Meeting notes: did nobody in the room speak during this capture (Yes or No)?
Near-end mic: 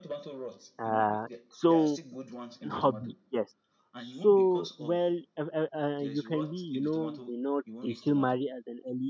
No